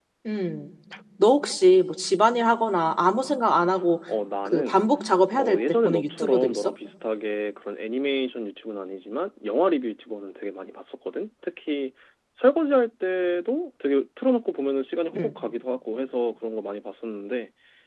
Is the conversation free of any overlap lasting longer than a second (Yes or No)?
No